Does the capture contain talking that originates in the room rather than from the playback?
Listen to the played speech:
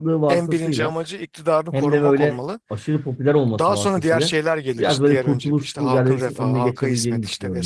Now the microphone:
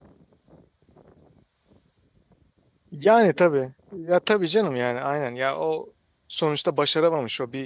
Yes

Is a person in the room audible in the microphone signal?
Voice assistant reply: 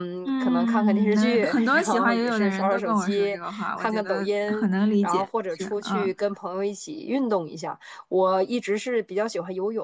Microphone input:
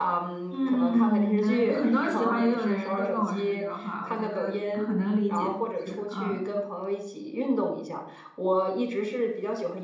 No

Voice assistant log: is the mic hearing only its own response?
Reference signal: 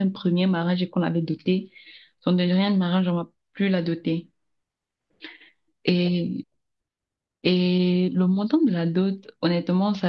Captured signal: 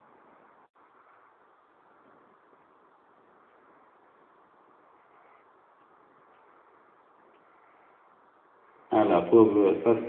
No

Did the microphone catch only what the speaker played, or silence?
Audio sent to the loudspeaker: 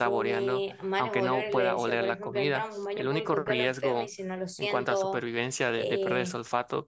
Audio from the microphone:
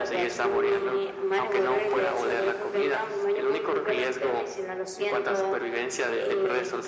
Yes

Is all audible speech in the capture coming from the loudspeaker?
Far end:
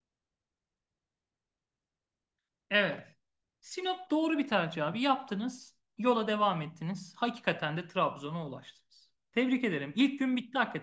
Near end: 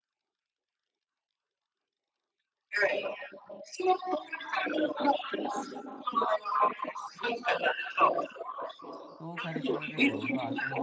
No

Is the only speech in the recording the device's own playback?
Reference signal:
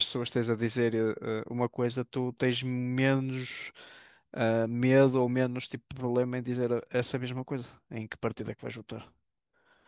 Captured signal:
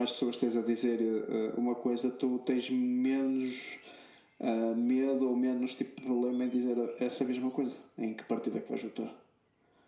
Yes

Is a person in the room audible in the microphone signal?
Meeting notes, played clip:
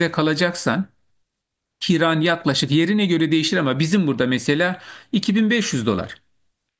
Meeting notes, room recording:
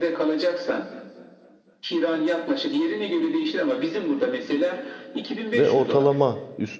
Yes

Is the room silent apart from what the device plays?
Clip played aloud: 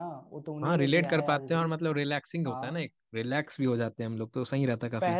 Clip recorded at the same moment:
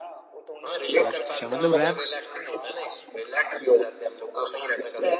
No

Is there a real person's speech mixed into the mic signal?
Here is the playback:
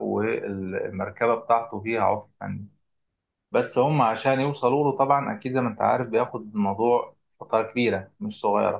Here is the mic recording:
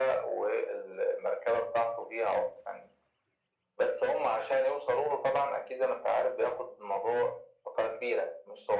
No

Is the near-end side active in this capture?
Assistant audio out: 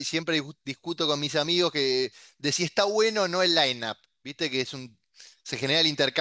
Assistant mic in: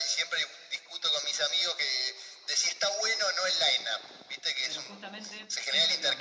Yes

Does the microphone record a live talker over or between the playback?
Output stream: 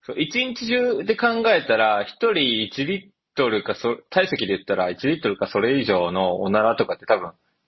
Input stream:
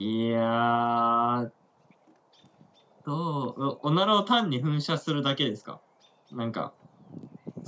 Yes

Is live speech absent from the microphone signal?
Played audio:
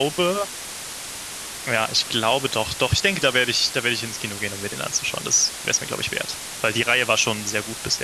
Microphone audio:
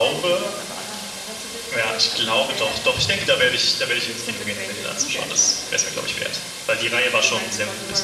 No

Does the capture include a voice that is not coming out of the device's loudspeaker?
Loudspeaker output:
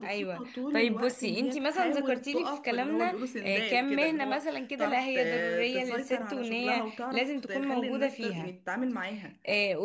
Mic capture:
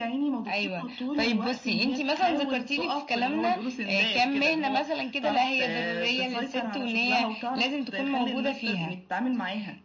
No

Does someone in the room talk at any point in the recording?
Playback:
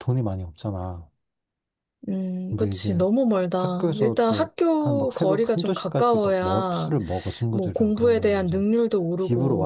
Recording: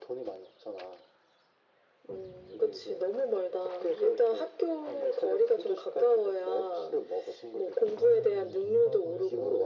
Yes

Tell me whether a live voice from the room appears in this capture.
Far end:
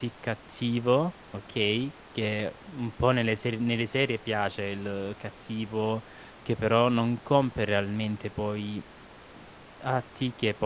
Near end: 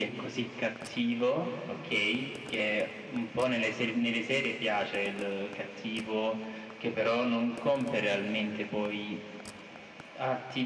No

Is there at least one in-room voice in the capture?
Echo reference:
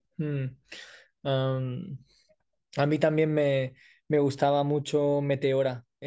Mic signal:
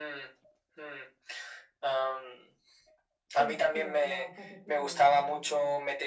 Yes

